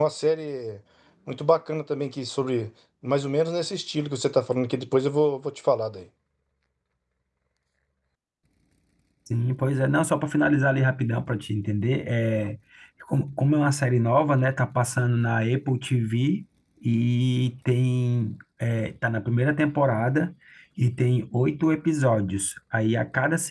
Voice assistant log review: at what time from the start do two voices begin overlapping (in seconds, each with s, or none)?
none